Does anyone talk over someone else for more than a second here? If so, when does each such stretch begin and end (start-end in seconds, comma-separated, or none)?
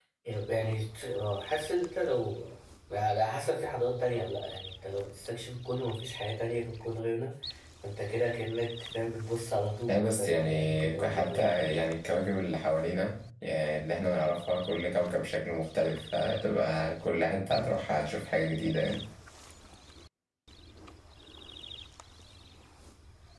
9.9-11.6